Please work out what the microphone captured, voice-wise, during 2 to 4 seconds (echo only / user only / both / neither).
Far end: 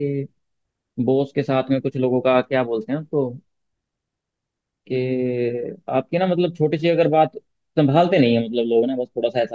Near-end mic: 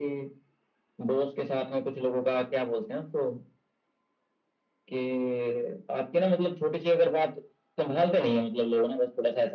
echo only